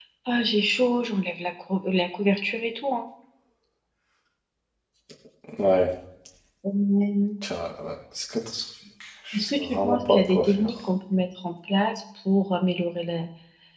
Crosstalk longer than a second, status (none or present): present